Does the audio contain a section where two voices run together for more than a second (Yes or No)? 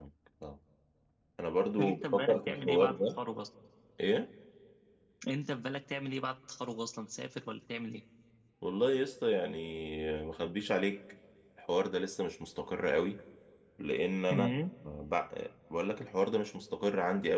Yes